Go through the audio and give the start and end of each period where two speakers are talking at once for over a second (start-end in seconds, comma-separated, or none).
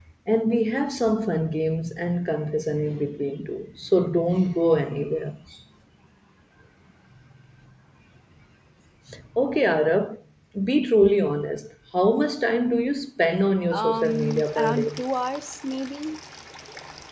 13.7-15.0